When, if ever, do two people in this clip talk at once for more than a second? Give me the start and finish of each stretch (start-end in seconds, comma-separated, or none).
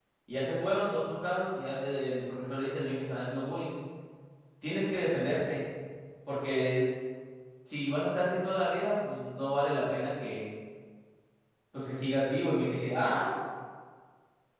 none